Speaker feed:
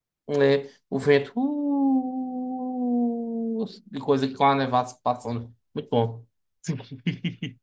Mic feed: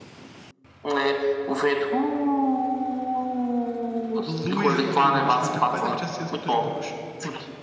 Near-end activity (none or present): present